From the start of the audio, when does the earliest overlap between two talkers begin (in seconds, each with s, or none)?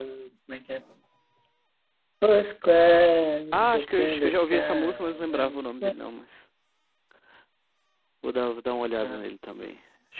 3.5 s